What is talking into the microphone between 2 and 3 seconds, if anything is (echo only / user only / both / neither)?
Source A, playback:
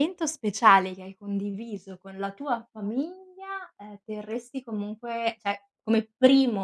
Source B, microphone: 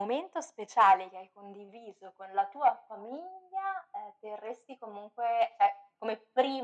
echo only